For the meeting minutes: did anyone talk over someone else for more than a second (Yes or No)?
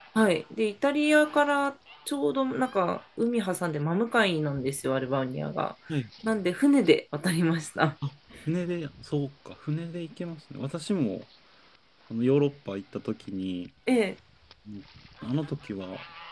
No